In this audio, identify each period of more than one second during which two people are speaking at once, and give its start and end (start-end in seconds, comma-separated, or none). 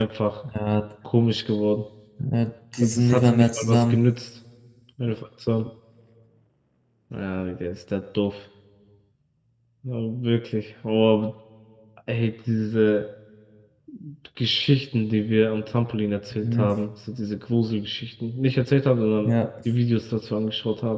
2.8-4.0